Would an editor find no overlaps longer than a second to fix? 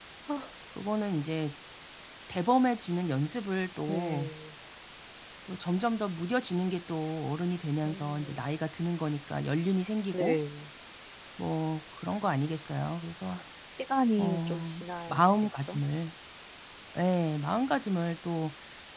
No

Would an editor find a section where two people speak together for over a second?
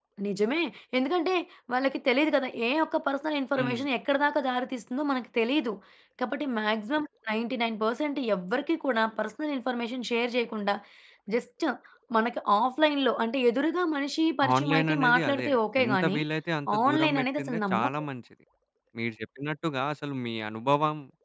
Yes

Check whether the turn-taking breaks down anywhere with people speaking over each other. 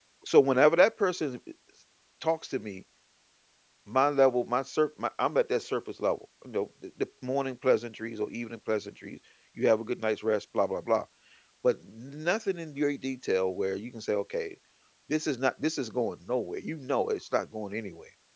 No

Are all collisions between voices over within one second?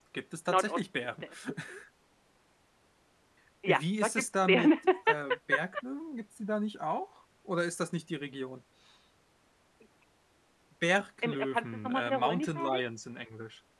No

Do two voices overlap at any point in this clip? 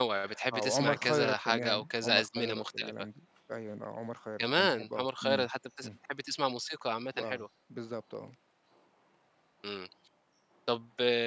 Yes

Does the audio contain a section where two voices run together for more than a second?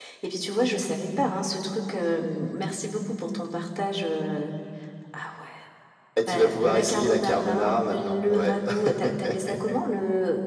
Yes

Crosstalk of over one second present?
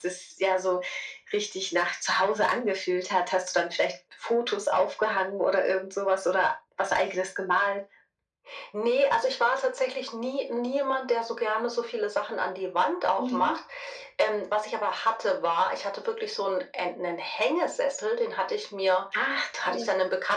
No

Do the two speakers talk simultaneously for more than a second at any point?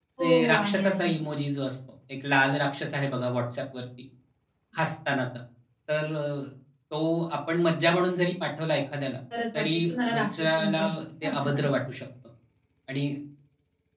Yes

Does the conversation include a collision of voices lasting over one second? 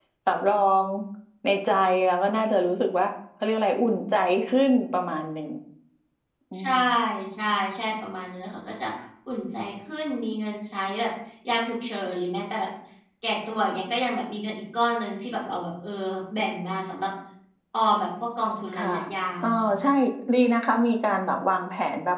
No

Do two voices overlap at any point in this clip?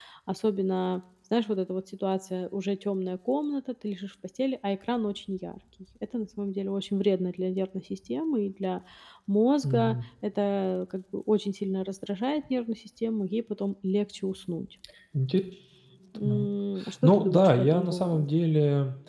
Yes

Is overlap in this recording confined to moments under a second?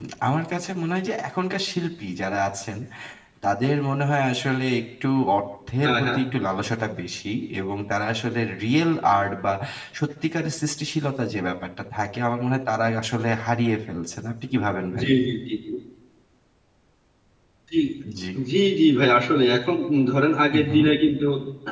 Yes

